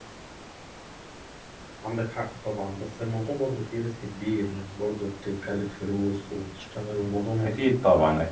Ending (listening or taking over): taking over